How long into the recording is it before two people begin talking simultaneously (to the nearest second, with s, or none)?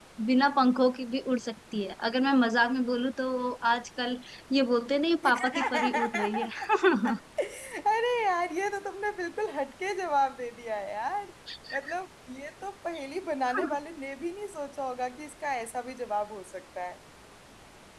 5 s